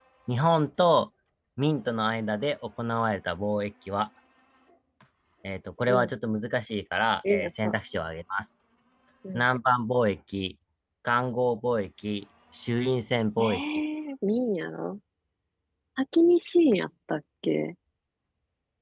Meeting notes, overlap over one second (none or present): none